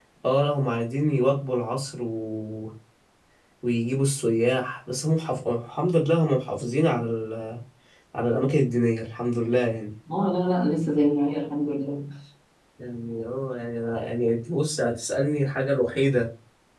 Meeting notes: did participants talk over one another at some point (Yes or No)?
No